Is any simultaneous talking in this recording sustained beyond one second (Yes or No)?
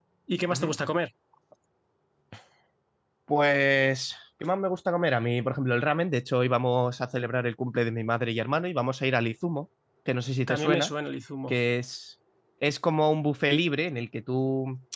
No